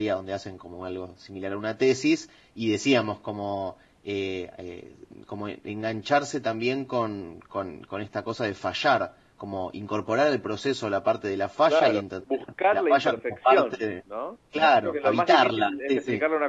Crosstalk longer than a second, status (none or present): present